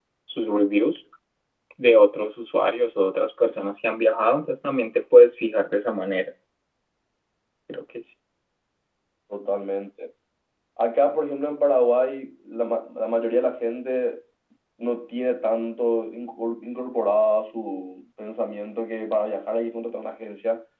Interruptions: none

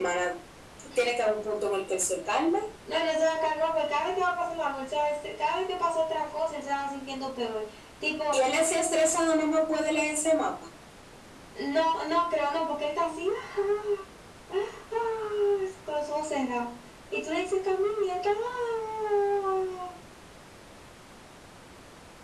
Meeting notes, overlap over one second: none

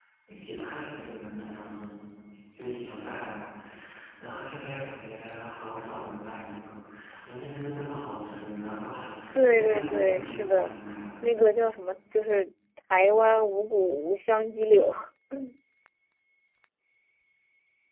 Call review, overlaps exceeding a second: present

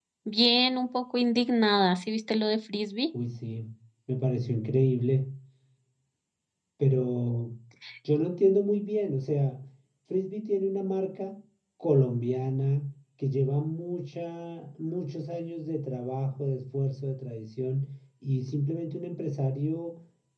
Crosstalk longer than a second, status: none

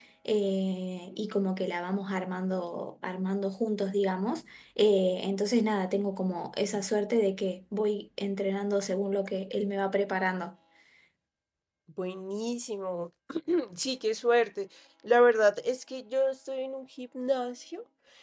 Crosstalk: none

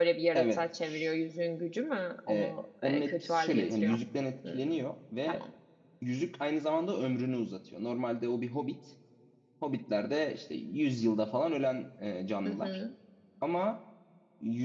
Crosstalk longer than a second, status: present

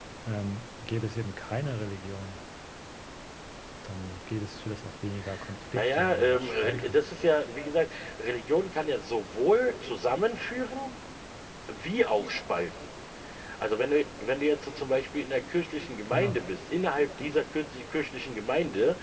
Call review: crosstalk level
present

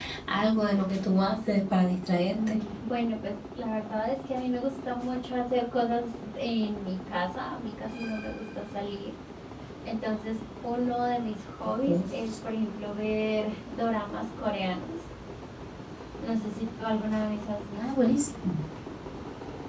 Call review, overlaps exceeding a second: none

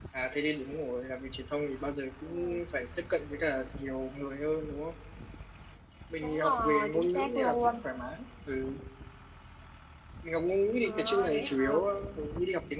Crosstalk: present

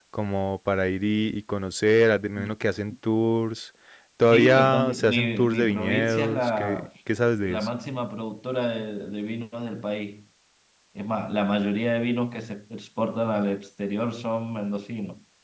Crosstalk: present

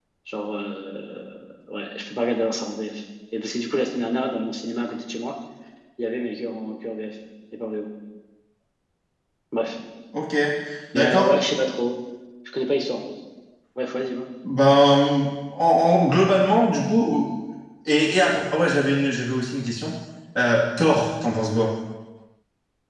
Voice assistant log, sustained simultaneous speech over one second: none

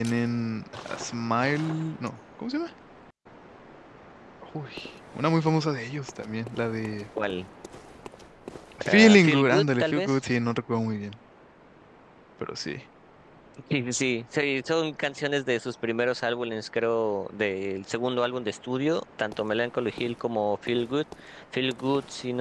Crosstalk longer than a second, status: present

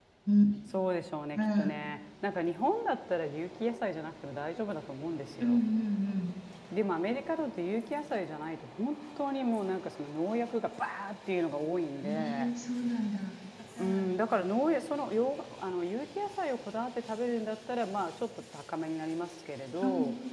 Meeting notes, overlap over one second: none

